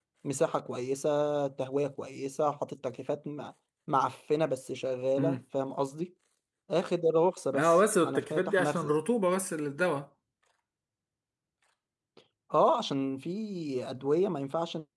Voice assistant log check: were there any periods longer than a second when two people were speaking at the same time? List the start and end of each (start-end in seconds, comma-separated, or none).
7.5-8.9